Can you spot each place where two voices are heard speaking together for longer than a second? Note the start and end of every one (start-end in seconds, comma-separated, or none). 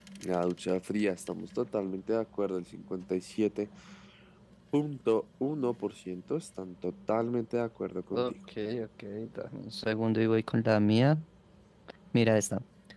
none